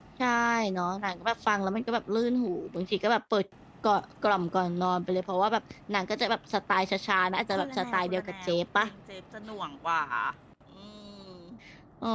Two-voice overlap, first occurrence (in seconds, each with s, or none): 7.5 s